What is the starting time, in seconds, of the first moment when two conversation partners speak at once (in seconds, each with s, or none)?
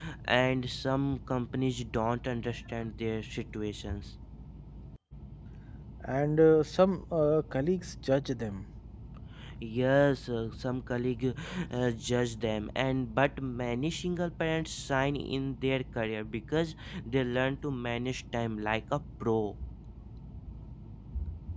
none